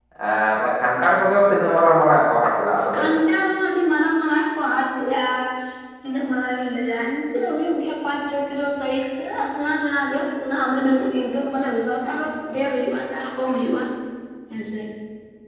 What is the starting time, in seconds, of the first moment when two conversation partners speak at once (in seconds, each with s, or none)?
none